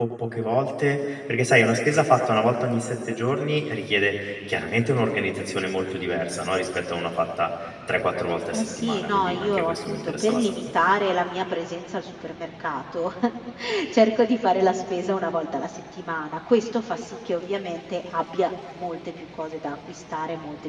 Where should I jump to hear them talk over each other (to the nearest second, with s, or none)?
9 s